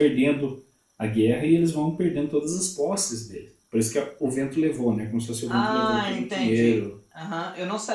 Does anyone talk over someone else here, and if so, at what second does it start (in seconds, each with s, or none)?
5.5 s